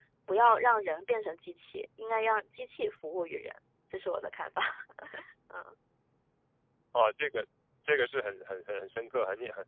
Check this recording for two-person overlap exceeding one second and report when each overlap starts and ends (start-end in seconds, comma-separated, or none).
none